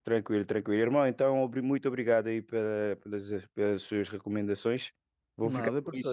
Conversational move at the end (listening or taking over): listening